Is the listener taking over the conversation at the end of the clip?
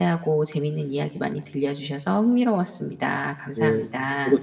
Yes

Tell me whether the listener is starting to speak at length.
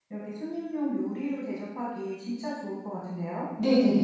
Yes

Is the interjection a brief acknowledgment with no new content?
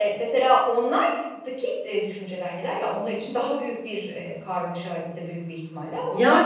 No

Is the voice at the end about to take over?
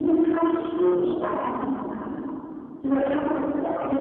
No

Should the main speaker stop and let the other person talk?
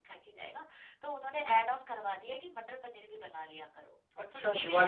Yes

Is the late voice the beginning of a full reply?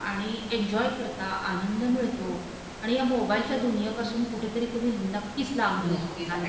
Yes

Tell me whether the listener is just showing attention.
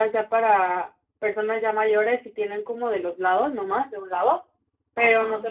Yes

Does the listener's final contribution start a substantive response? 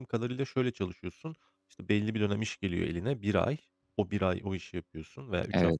No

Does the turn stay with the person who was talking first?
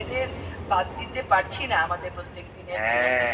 No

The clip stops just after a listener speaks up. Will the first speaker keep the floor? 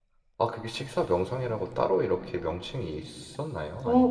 No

